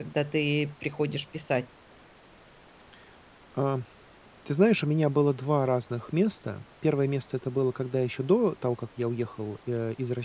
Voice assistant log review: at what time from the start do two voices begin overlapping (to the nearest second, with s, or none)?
none